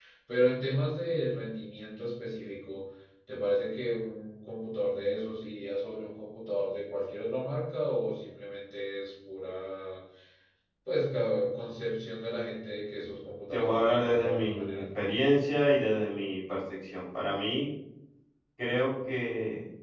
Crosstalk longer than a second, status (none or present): present